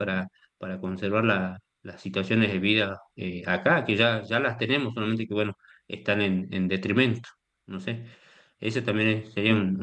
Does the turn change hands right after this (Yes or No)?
No